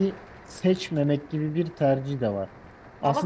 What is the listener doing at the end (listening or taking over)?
listening